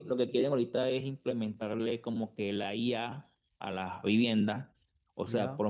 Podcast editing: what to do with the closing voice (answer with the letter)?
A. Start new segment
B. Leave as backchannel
B